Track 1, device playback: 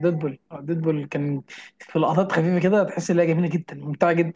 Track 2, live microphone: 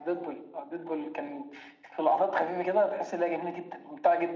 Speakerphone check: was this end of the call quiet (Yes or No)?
Yes